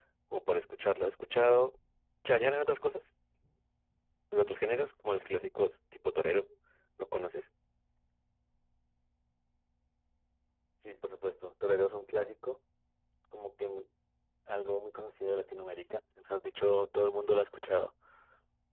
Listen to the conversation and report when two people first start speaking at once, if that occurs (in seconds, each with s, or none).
none